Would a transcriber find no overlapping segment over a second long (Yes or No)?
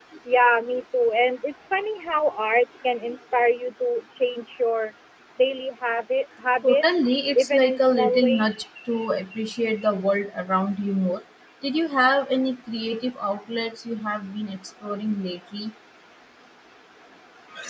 No